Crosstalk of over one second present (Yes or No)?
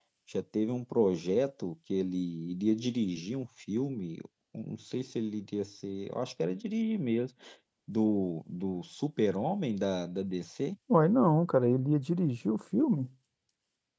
No